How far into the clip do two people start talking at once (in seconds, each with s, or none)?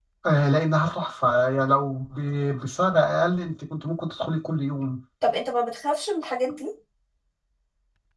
none